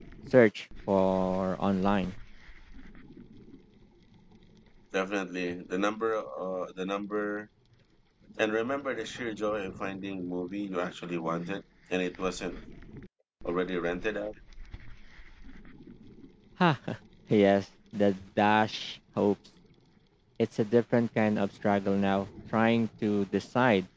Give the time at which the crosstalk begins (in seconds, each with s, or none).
none